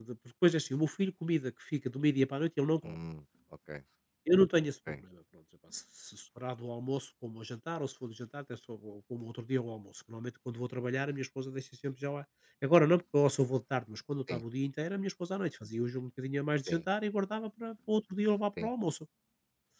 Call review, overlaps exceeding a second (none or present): none